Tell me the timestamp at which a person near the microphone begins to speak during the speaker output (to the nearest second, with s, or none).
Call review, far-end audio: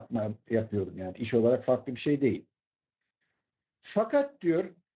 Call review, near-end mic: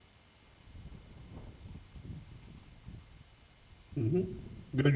4 s